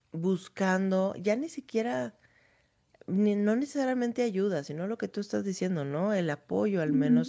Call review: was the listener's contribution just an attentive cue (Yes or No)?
No